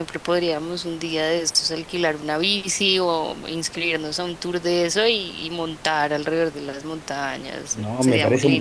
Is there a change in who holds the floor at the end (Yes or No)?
Yes